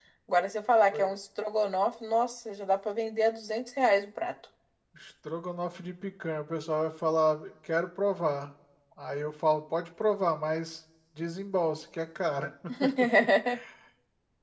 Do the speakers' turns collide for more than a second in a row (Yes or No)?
No